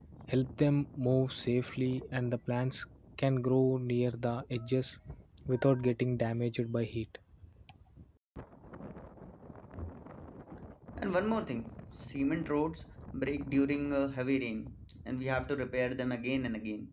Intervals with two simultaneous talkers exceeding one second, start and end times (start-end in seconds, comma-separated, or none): none